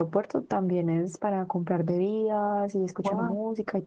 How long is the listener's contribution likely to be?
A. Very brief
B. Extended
A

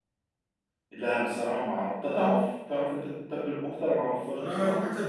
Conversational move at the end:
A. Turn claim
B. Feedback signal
A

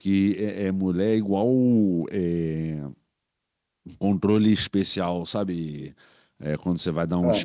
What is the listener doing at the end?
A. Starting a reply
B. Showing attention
B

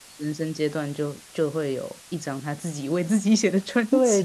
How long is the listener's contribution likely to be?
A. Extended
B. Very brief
A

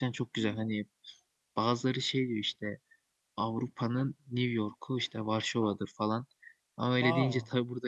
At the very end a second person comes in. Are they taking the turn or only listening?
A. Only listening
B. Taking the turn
A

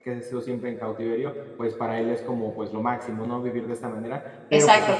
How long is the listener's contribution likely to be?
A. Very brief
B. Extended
B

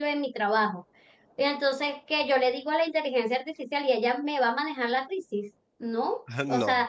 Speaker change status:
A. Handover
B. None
B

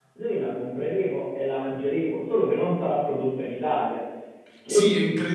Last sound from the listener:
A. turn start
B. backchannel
A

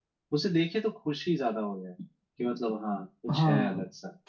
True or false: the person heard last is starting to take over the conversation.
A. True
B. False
A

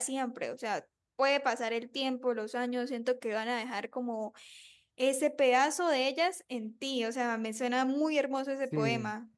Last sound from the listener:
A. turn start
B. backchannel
A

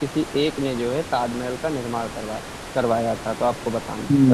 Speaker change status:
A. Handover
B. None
A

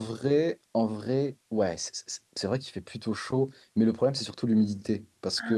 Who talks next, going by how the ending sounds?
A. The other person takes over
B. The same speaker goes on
B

